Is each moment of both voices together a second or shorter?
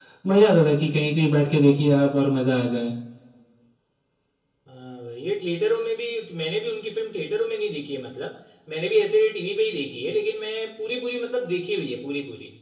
Yes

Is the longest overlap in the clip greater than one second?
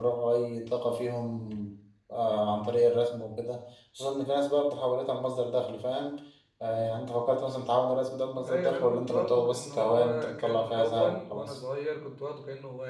Yes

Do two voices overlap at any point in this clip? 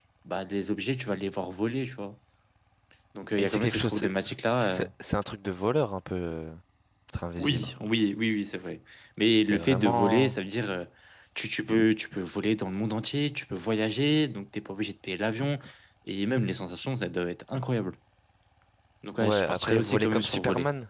Yes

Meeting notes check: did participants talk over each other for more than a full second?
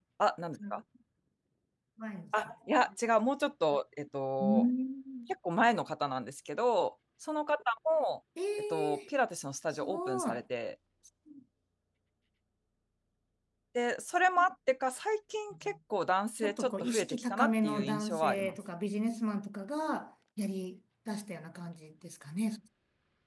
Yes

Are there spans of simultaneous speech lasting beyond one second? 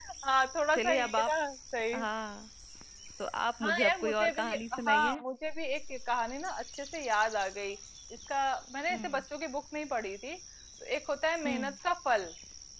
Yes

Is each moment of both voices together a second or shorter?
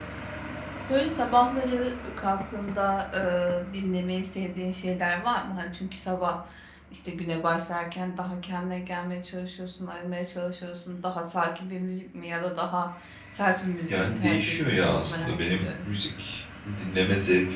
No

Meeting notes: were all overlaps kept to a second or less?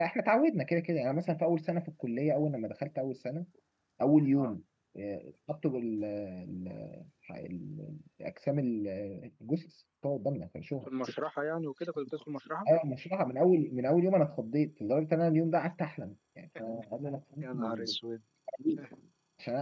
Yes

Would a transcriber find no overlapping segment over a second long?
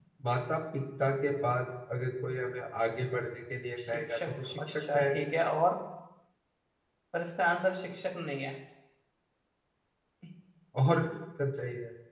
No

